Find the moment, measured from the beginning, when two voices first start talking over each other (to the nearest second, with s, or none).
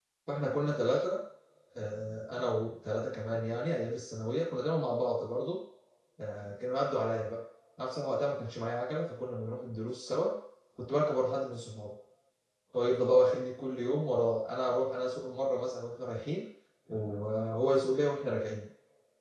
none